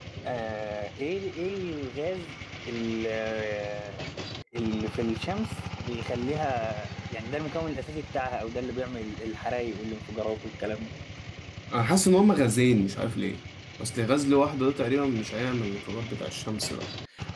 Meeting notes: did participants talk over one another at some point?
No

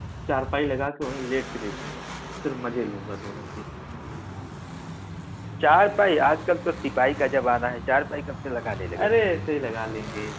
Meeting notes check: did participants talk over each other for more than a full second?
No

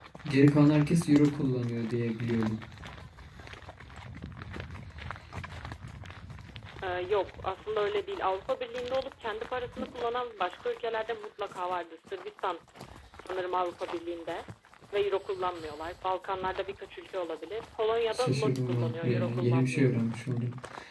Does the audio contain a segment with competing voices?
Yes, from 18.1 s

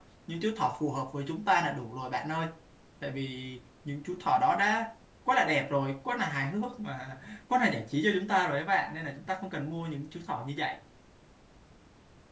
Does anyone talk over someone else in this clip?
No

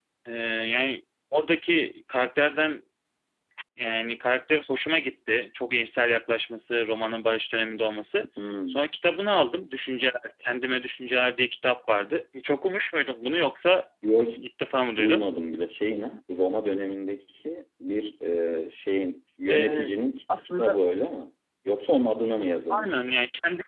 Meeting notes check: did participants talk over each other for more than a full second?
No

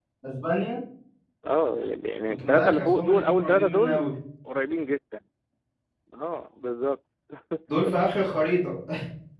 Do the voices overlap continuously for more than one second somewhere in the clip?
Yes, from 2.3 s

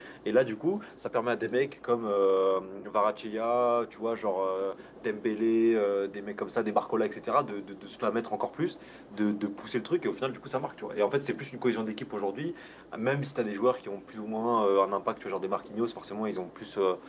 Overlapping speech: No

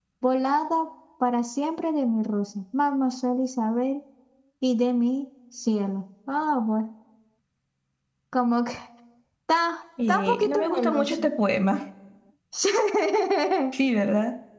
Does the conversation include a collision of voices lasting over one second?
Yes, from 10.1 s

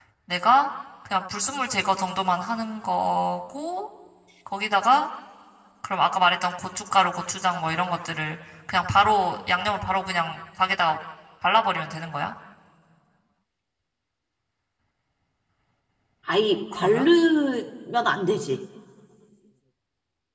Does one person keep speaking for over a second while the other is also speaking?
No

